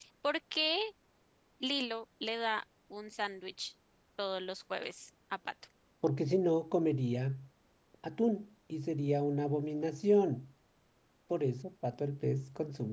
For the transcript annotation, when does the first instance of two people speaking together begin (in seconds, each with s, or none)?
none